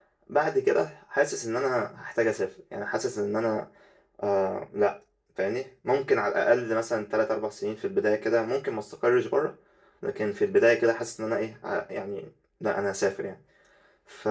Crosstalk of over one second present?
No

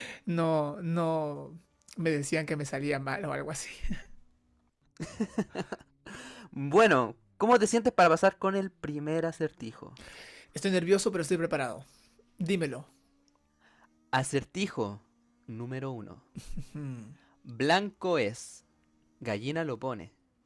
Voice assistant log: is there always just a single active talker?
Yes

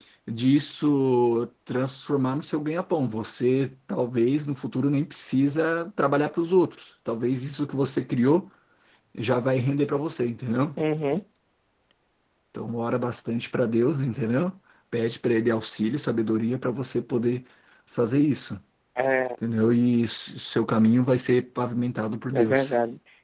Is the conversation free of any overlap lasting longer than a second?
Yes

